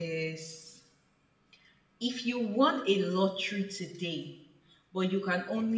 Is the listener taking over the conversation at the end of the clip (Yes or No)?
No